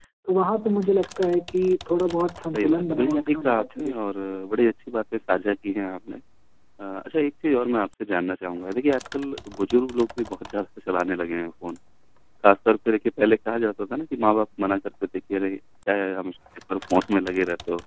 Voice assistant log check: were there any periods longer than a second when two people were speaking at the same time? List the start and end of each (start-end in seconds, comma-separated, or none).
2.5-3.9